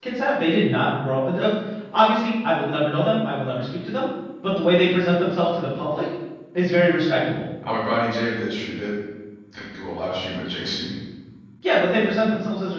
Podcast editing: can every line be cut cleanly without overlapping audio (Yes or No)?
Yes